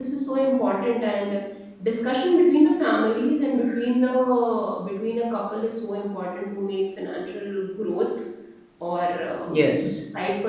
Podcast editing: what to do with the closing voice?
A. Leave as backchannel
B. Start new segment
A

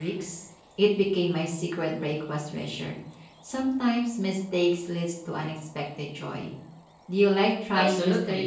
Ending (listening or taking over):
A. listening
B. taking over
B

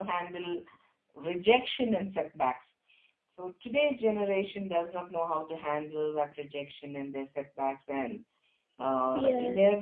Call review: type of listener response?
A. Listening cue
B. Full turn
A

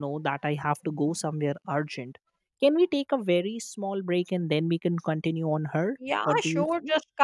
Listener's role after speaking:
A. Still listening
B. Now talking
B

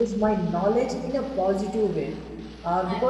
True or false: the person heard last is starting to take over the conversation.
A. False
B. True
A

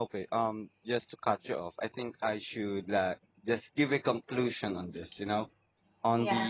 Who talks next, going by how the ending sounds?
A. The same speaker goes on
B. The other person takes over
A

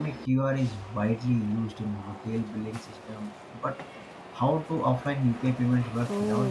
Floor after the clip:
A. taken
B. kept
A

